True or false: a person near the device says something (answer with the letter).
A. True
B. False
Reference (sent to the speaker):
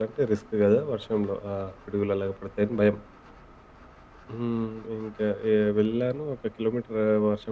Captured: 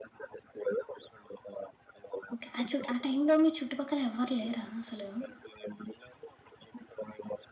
A